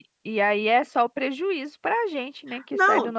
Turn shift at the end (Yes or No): Yes